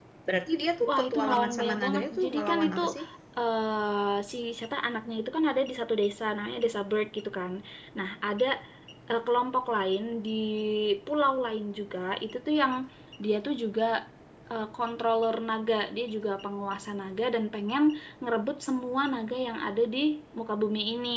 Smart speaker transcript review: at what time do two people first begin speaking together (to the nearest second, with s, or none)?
1 s